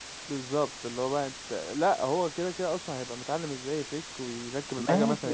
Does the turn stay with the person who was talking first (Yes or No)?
No